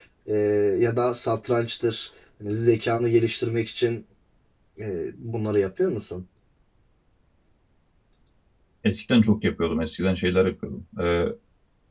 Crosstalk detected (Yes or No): No